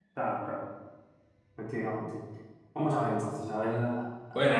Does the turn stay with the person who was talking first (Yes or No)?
No